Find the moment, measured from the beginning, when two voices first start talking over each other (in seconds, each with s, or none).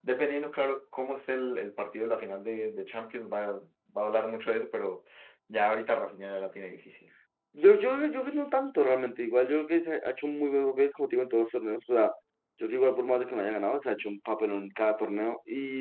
none